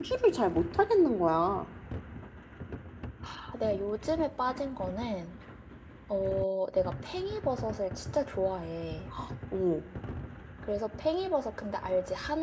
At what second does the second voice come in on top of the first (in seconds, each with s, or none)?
none